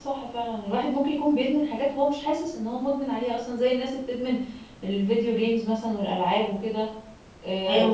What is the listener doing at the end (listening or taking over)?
listening